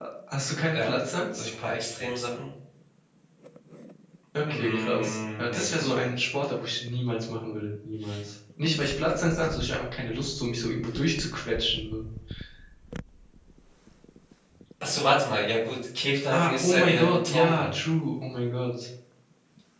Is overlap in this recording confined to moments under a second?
No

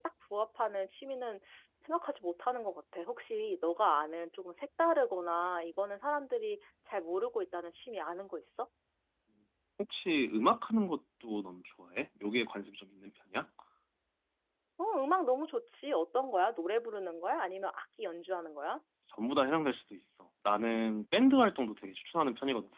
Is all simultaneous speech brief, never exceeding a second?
Yes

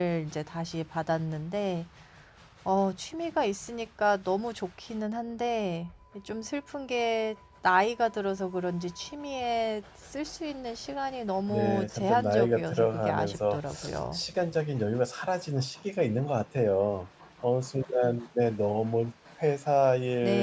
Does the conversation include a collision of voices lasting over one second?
Yes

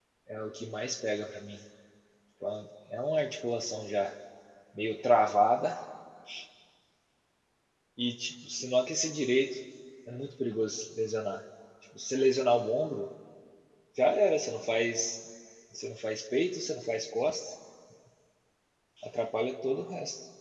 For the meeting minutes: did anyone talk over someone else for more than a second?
No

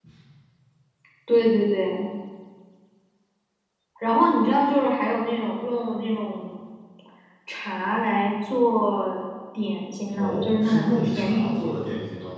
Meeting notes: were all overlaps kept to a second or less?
No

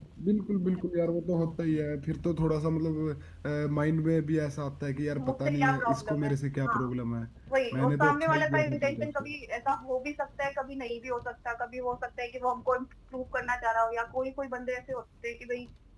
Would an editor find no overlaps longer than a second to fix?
No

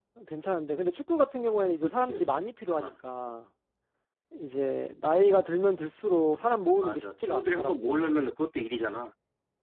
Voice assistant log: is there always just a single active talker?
No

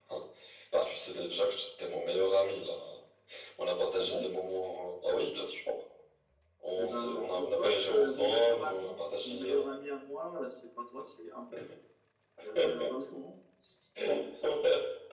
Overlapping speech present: Yes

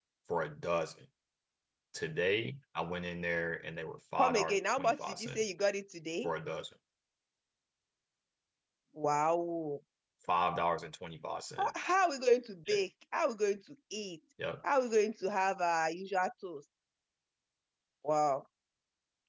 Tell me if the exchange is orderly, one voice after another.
No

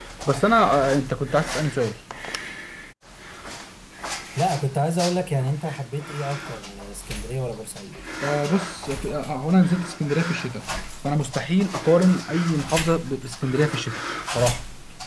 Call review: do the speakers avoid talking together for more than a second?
Yes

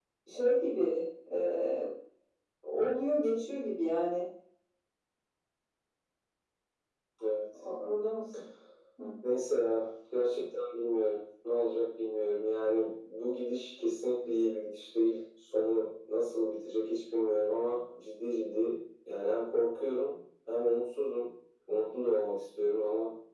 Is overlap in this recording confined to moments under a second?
Yes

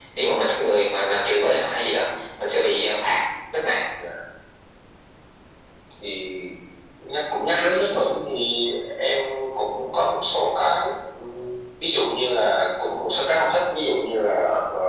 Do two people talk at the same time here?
No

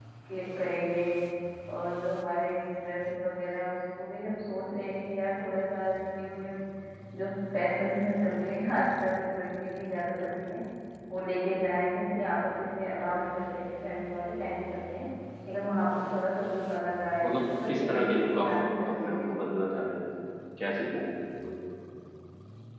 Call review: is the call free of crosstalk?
No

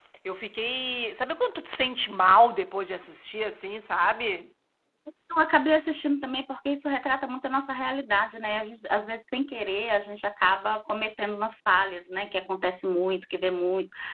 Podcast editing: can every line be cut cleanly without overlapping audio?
Yes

